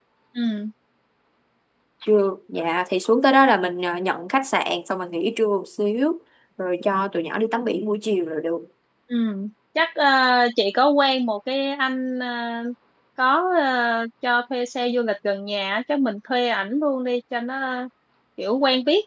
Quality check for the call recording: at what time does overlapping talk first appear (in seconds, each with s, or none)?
none